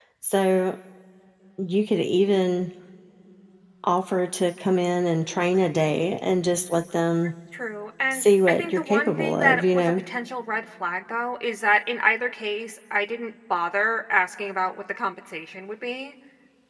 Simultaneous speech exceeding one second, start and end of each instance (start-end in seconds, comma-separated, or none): 8.1-10.0